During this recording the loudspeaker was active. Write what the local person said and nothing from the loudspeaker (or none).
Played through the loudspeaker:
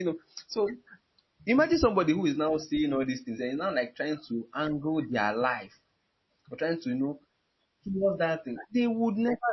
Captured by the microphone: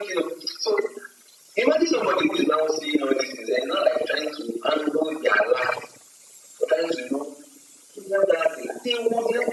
none